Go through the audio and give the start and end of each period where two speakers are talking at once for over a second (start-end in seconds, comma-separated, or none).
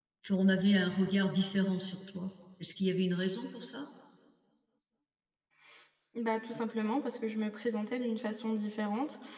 none